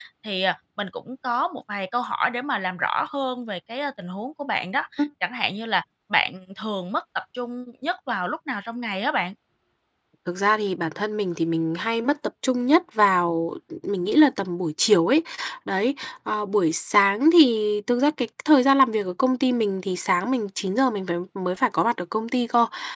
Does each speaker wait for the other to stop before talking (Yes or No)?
Yes